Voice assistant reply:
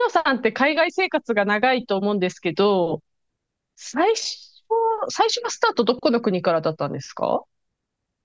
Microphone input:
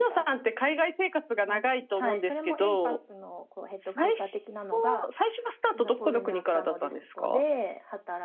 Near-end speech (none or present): present